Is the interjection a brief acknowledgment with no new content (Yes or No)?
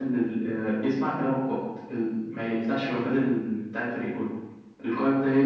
Yes